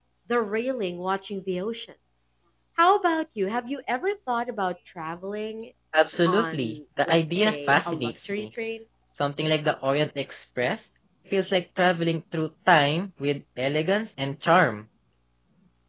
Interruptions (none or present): present